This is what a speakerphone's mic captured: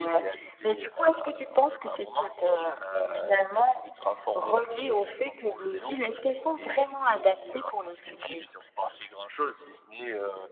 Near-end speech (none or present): none